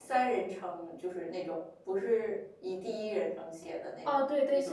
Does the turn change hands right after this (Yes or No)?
Yes